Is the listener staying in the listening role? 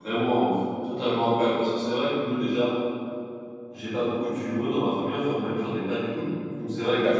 Yes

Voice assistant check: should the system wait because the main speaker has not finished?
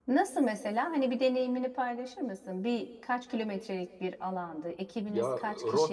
No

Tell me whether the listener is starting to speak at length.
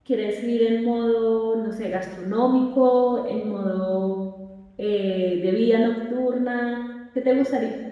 Yes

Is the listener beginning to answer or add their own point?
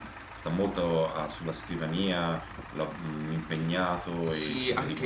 Yes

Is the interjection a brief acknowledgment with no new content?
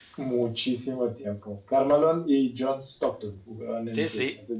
No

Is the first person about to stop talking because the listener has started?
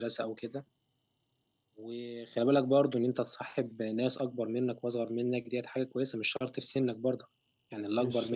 Yes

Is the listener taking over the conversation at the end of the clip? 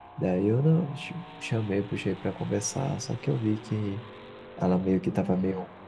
No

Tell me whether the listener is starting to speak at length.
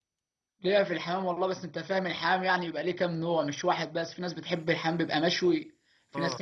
No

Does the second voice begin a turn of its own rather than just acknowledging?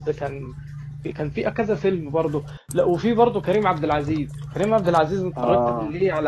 No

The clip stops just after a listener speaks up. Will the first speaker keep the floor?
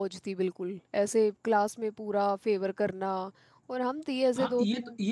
No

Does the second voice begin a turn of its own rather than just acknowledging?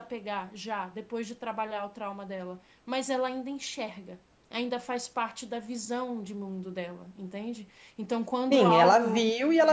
Yes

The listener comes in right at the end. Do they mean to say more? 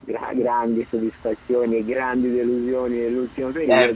Yes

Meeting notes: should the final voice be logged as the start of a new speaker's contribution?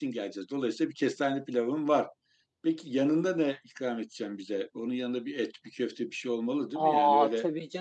Yes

